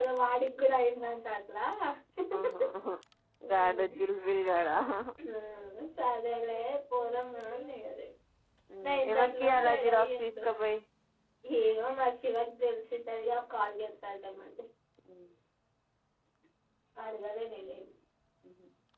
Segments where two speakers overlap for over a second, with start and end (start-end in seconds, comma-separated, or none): 8.8-10.4